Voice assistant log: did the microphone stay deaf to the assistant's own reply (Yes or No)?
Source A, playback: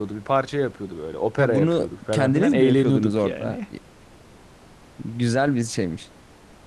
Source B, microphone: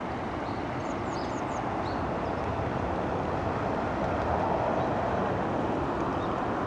Yes